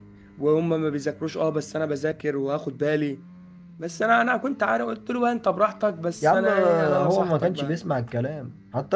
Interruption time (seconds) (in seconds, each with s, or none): 6.2 s